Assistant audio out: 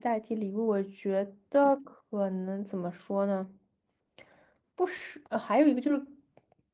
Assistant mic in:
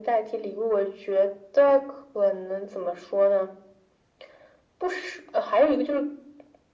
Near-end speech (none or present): none